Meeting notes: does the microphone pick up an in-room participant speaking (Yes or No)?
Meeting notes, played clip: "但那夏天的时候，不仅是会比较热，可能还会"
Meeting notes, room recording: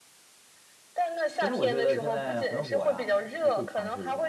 Yes